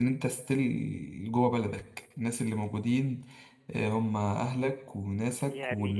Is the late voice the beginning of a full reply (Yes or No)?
Yes